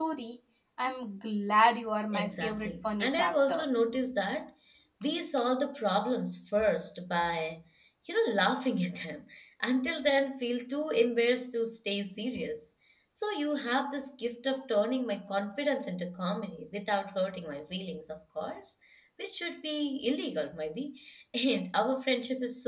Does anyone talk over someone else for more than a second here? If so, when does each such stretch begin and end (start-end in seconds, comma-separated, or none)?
2.1-3.7